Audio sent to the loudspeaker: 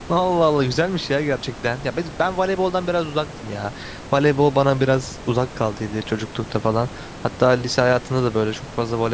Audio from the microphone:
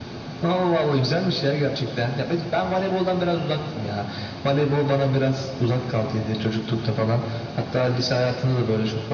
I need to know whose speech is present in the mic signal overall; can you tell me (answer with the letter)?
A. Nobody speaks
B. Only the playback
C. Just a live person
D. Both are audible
B